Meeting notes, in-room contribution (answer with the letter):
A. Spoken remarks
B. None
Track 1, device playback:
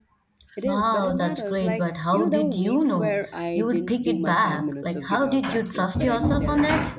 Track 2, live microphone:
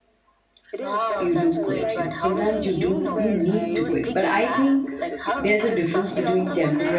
A